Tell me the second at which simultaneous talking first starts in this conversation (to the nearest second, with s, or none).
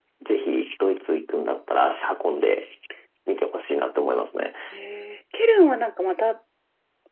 none